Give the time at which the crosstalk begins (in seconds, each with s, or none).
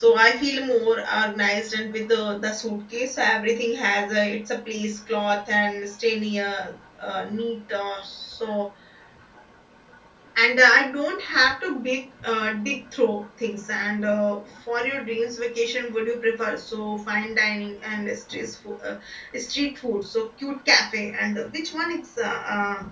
none